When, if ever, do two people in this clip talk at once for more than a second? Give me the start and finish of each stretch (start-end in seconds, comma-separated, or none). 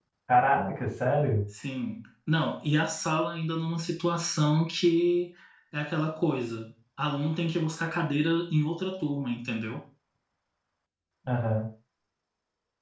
none